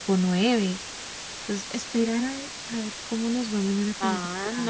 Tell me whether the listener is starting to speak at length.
Yes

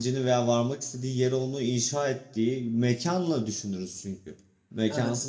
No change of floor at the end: Yes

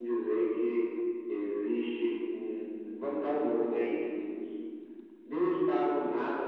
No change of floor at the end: Yes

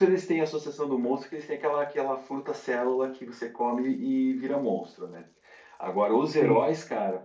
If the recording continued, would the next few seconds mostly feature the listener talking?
No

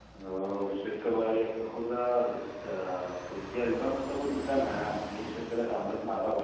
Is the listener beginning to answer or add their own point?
Yes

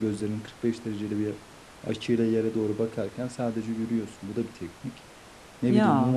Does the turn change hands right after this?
No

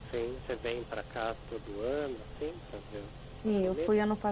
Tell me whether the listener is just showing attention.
No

